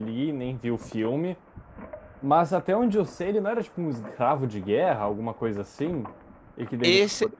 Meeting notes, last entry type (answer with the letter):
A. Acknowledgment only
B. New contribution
B